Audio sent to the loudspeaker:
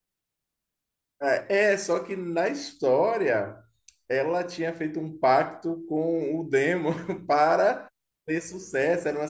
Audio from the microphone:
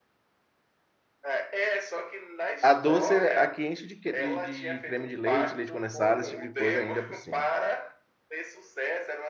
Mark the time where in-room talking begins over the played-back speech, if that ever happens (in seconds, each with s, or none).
2.6 s